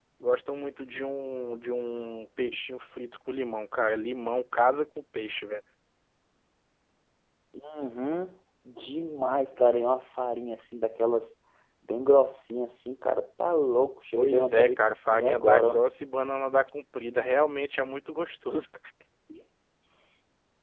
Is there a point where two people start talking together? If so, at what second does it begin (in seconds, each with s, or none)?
14.2 s